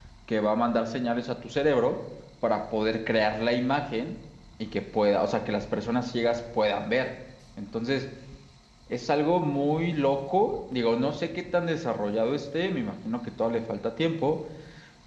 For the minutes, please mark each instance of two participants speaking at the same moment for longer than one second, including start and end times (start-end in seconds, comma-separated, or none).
none